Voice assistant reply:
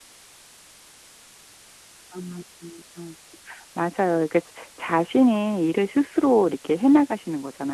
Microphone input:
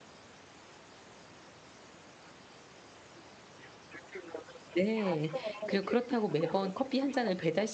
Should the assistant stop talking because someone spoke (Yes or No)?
Yes